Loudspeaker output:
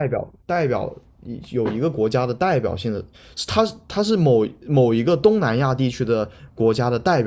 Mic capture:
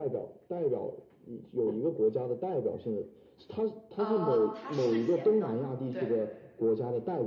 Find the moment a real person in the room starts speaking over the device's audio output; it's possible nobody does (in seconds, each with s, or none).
3.9 s